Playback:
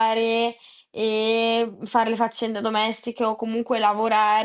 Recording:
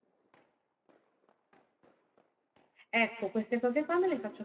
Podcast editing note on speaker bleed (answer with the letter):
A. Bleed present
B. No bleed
B